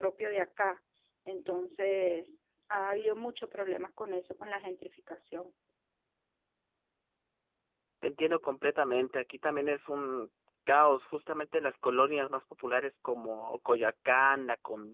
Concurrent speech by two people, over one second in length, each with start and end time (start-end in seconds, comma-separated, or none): none